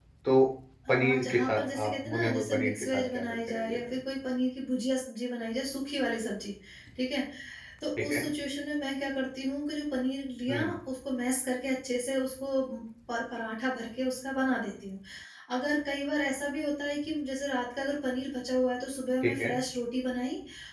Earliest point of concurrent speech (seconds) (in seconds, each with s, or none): 0.9 s